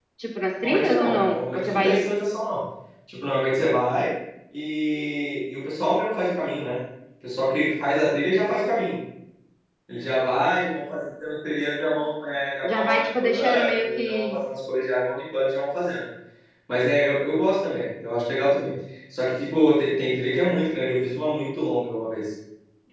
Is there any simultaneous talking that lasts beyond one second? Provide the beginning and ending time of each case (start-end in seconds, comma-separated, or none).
0.6-2.0, 12.6-14.4